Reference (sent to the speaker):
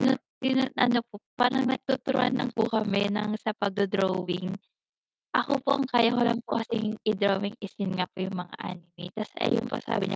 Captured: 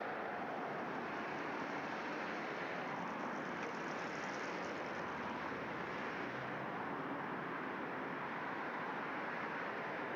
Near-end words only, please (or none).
none